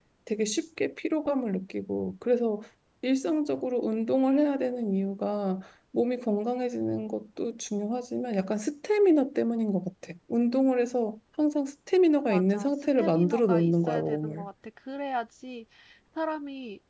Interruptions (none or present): present